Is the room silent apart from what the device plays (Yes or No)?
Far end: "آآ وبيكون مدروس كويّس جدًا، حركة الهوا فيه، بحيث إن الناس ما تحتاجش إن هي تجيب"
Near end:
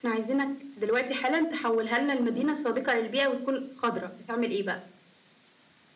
No